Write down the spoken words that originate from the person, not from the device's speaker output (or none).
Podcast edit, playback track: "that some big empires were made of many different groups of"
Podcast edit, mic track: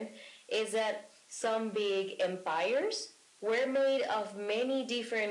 none